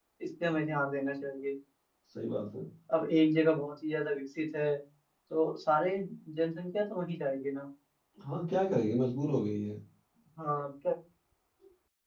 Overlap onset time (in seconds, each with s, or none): none